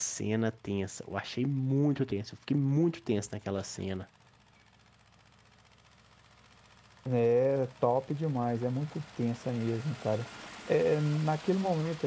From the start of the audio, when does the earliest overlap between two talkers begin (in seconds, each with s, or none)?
none